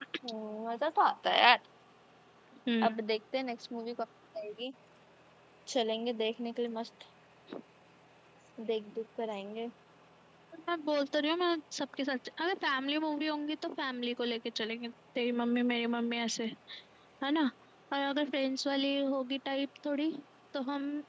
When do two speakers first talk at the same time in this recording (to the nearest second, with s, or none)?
none